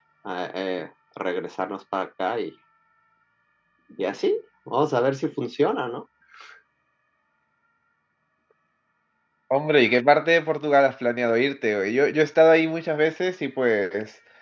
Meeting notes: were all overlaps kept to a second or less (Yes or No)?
Yes